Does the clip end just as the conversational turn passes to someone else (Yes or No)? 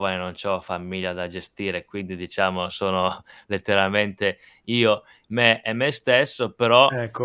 No